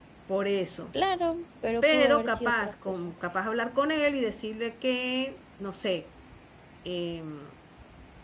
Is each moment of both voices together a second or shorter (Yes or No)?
No